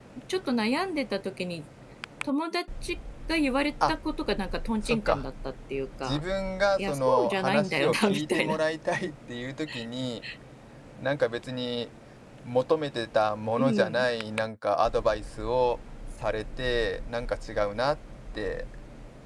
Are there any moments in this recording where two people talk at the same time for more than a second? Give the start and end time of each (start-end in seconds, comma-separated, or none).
6.8-8.6